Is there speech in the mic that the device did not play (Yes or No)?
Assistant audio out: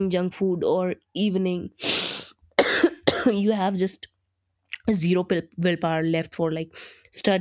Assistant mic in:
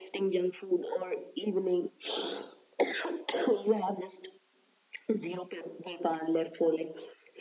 No